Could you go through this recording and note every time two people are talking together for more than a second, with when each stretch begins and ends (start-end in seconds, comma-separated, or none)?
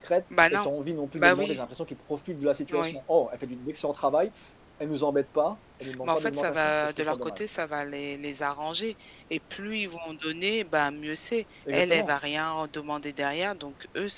6.0-7.4